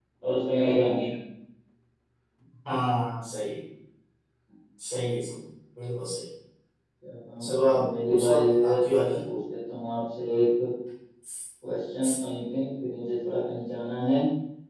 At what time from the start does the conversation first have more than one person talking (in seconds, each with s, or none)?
7.4 s